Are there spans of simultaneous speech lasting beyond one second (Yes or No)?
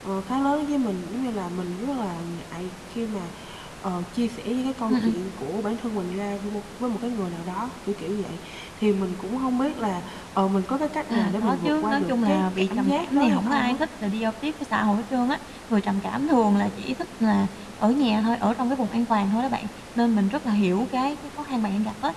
Yes